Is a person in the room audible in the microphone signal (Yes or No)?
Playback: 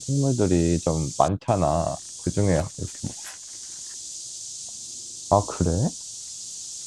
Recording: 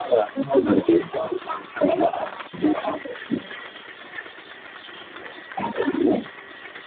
No